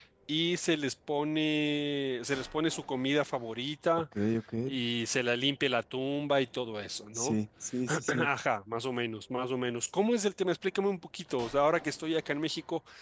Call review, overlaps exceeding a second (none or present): none